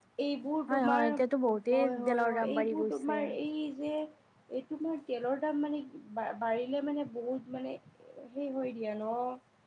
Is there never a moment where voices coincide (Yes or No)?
No